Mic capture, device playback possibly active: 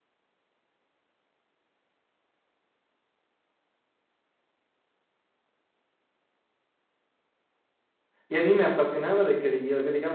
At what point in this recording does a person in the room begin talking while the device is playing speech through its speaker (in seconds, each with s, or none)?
8.3 s